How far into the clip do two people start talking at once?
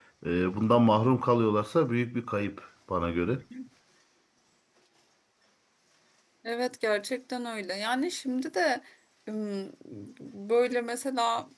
none

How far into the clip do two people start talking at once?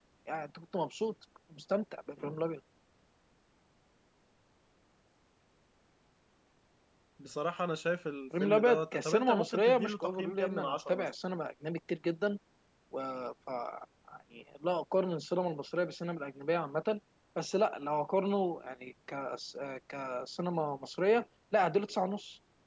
8.3 s

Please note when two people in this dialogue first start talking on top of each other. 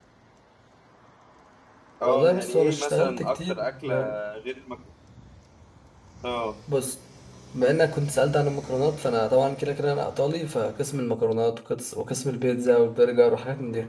2.0 s

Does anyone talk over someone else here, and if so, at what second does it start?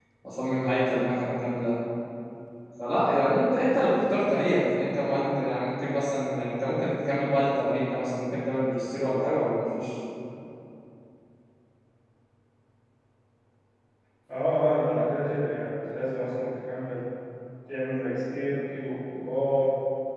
none

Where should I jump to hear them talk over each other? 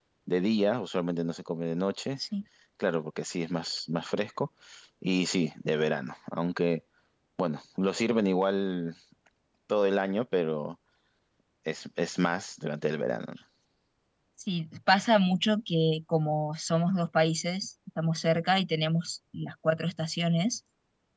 none

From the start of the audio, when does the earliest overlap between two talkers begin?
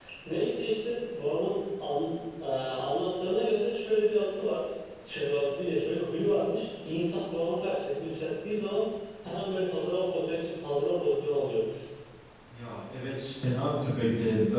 none

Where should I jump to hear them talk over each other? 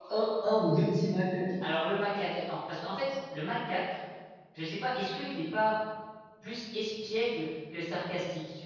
none

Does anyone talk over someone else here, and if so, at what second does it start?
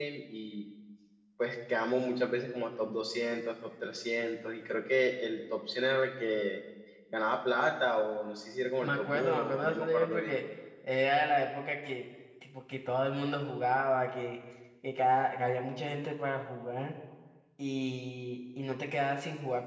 8.8 s

